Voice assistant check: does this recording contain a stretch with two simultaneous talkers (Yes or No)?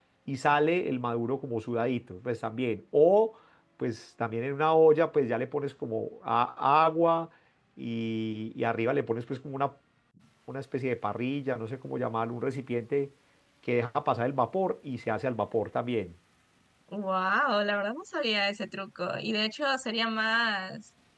No